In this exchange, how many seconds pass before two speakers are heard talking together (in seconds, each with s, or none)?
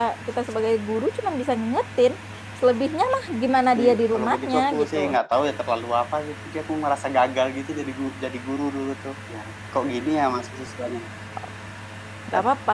3.8 s